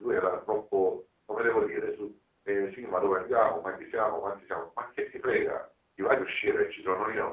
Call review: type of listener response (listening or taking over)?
listening